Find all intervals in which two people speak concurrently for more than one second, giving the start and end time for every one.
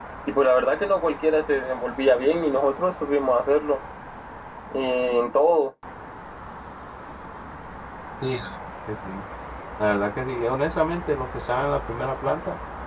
none

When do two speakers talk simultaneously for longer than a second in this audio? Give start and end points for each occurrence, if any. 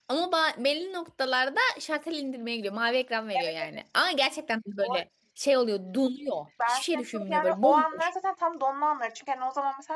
6.7-8.1

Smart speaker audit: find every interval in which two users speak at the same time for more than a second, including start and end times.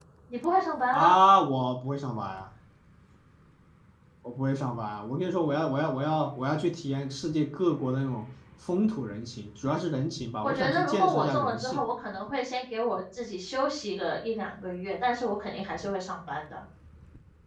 10.4-11.8

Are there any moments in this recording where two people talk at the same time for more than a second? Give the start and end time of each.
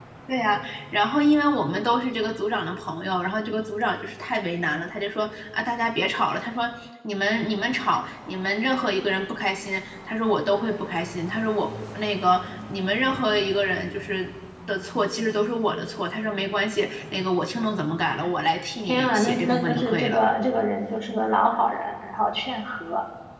18.8-20.2

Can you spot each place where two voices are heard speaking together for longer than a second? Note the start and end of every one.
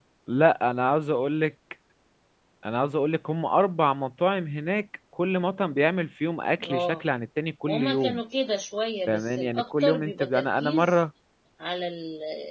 9.1-11.0

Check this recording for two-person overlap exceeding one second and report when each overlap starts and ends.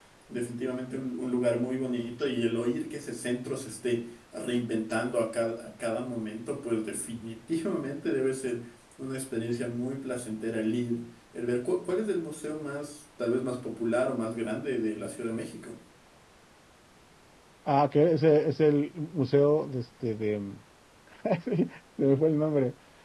none

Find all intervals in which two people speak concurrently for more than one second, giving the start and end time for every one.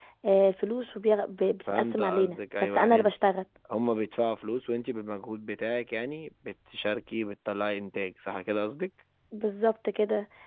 1.7-3.1

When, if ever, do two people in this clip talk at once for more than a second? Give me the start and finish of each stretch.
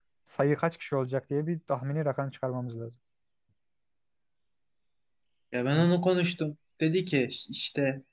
none

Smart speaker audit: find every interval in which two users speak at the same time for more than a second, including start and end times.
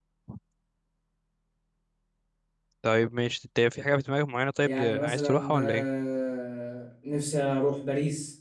4.6-5.9

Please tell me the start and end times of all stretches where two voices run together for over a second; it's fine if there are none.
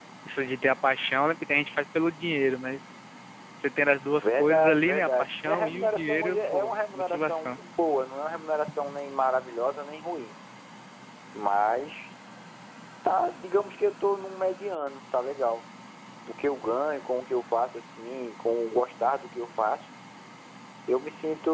4.1-7.6

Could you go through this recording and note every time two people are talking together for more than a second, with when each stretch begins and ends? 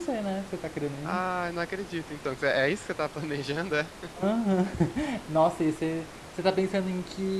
none

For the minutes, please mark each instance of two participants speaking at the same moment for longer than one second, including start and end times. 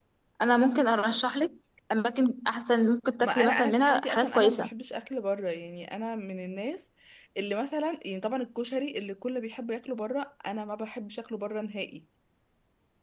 3.2-4.7

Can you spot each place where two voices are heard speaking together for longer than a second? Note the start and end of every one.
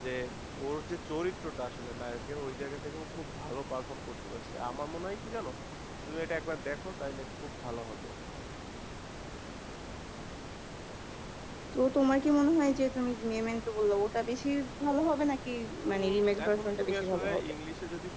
15.9-17.4

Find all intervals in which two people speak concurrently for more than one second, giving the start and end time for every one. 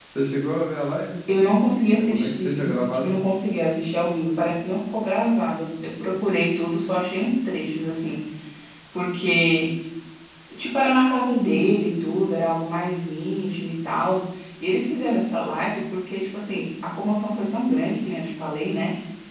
1.9-3.2

